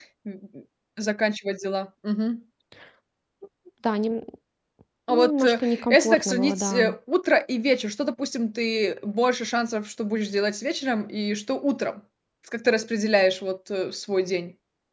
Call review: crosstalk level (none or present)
present